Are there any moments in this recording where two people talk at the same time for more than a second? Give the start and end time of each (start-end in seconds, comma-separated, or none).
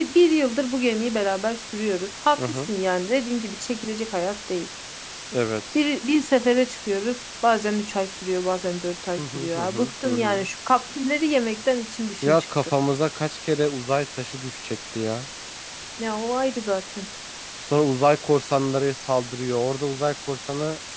9.2-10.5